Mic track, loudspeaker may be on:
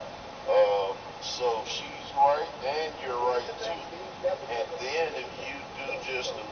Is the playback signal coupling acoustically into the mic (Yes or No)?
Yes